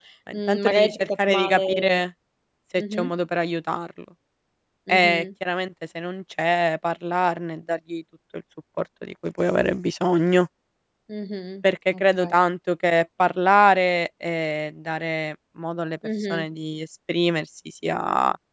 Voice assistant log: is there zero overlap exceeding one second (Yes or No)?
No